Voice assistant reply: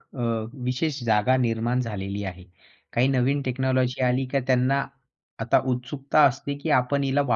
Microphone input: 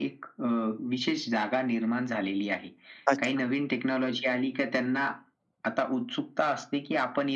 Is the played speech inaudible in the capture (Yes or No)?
No